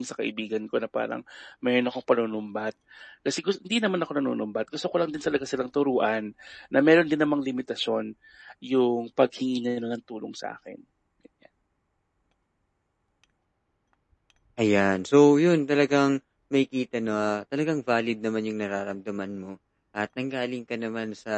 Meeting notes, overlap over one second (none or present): none